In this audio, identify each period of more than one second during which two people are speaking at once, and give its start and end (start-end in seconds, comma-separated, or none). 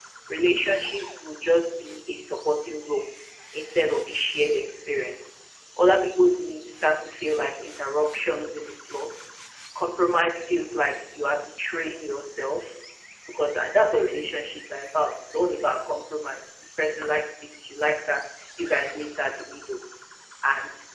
none